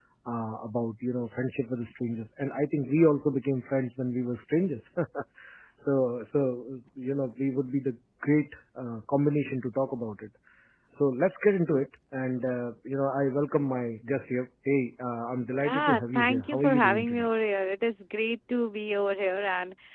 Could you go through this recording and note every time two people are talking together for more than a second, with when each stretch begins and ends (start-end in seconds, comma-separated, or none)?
15.7-17.3